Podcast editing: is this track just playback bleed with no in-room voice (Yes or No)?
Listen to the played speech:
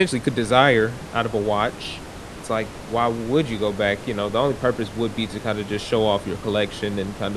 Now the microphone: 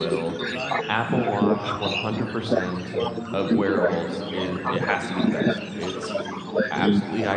No